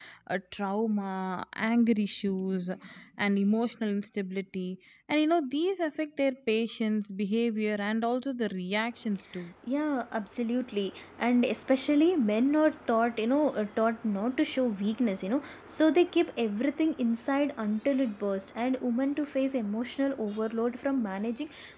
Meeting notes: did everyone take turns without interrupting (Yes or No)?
Yes